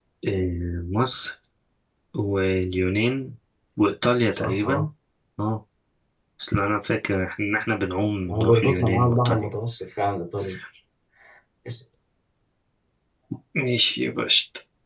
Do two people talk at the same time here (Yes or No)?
Yes